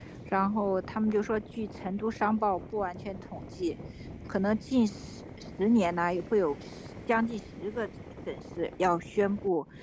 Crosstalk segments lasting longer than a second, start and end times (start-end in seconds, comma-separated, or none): none